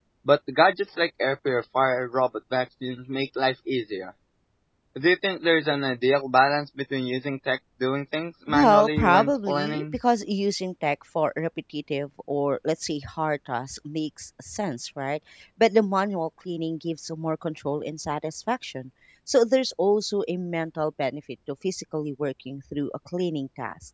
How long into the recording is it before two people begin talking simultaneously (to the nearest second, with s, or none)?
8 s